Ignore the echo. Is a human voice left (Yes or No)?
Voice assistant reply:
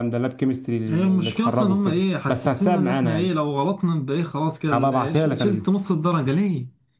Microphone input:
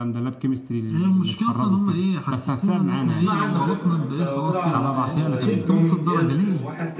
Yes